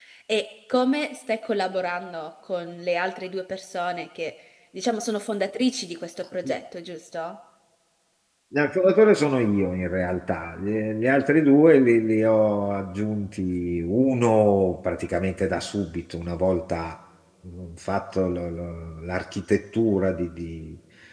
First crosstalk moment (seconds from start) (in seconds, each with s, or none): none